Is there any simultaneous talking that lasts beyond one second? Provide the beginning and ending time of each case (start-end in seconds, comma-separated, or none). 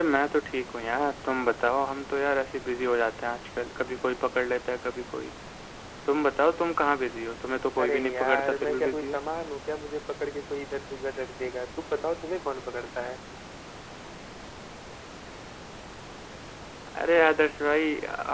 7.8-9.2